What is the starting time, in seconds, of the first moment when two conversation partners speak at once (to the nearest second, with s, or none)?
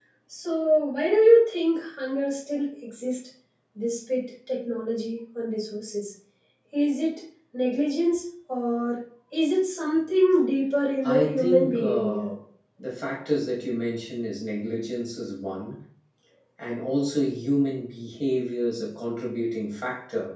11 s